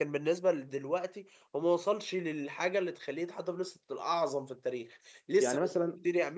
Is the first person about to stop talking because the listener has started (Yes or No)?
No